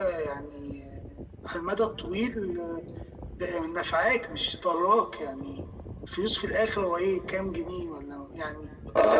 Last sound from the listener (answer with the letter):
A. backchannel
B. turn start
B